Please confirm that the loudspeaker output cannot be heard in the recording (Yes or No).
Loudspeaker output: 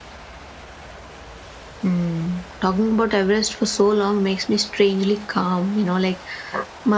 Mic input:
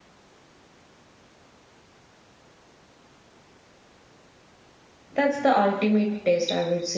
Yes